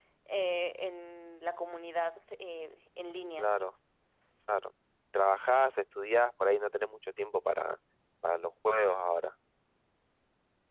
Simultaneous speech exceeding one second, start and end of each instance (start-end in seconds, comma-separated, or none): none